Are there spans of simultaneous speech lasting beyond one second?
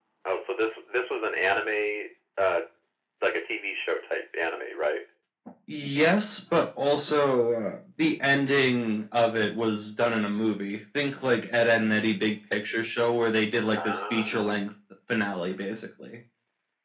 No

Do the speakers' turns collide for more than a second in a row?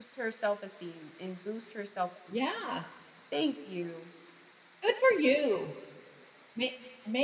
No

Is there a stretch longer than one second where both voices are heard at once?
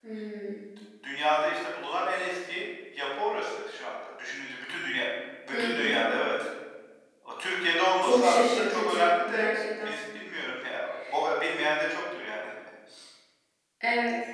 Yes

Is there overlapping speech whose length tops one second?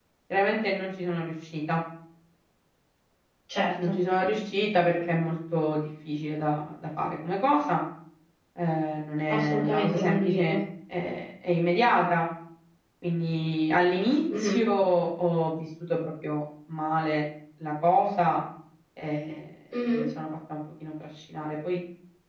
Yes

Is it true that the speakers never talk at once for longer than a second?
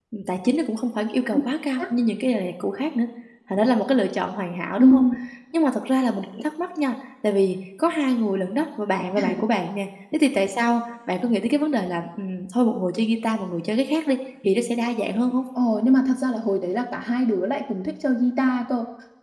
Yes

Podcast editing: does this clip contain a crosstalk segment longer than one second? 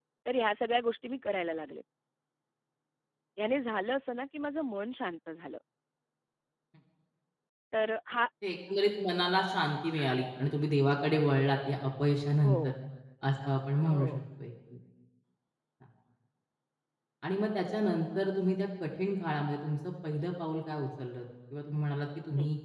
No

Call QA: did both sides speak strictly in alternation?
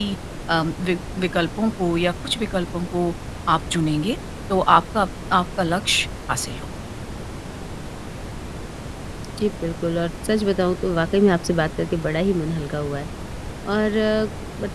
Yes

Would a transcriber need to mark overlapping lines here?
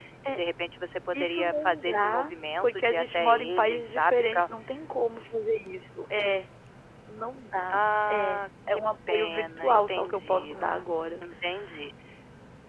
Yes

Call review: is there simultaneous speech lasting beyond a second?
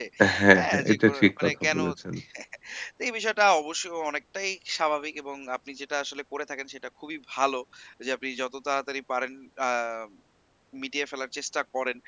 Yes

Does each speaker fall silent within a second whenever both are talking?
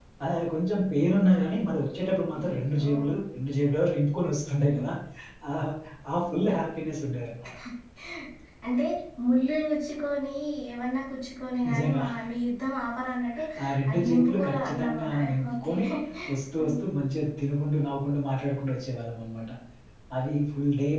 No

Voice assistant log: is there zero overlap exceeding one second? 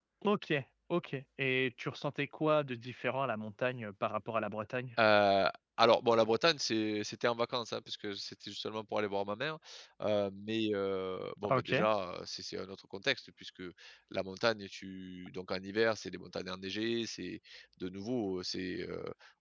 Yes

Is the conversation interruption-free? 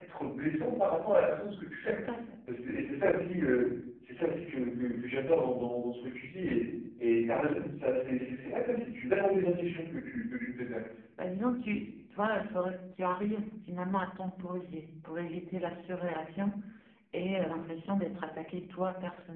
Yes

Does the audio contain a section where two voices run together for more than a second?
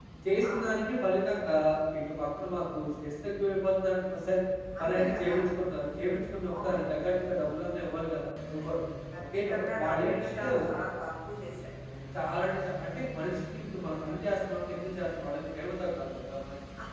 Yes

